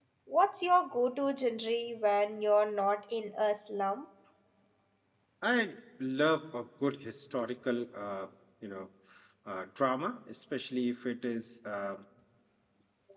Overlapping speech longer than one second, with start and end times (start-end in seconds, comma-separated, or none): none